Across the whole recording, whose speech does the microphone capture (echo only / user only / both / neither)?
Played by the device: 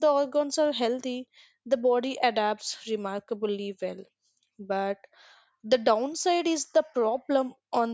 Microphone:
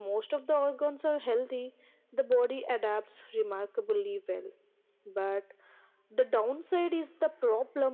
echo only